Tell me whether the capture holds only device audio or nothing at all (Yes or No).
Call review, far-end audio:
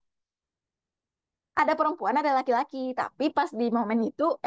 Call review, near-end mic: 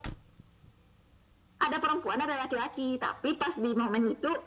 Yes